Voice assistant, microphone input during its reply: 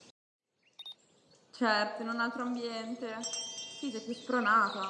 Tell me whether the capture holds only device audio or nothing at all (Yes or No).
No